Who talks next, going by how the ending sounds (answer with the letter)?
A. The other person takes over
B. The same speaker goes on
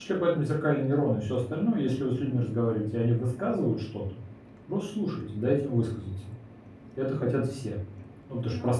A